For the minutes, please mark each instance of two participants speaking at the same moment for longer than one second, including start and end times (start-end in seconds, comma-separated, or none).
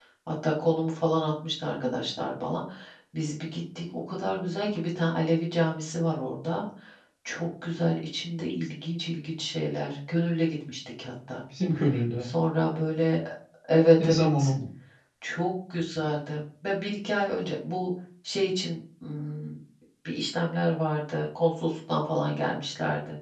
none